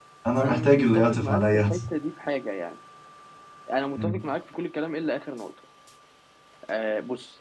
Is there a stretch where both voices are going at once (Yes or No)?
Yes